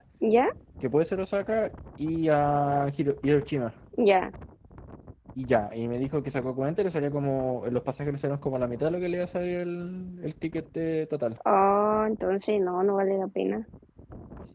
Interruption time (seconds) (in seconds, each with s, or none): none